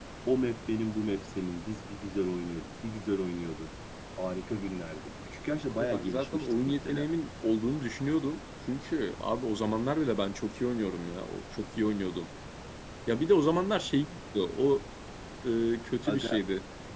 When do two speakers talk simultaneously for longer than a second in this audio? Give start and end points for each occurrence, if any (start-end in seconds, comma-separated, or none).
5.7-7.0